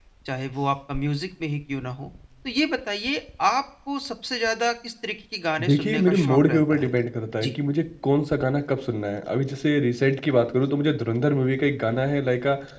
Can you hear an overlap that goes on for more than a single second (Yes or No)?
Yes